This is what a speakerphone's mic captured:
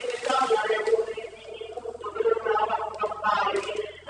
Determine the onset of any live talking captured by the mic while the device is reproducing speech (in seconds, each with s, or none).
none